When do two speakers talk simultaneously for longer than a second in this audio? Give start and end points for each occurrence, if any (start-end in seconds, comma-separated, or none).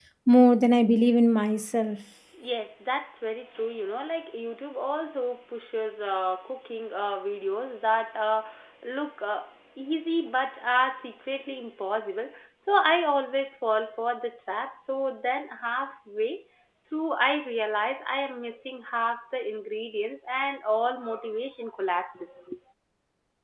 none